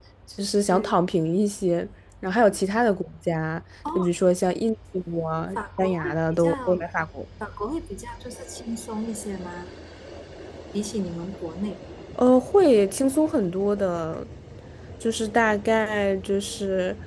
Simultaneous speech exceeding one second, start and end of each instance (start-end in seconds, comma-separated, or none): 5.6-6.8